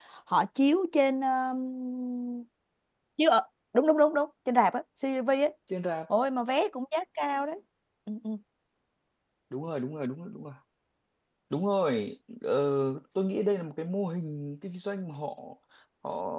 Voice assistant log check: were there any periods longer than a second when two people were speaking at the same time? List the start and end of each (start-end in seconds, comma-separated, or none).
none